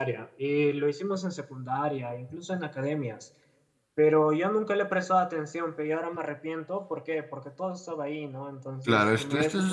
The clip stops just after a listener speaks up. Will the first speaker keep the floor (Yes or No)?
No